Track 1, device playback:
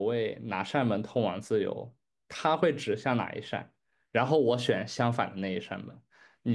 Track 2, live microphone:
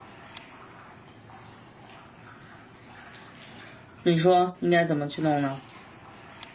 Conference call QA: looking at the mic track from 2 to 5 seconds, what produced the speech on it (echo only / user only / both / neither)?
user only